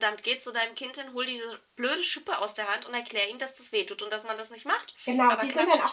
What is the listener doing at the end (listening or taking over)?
taking over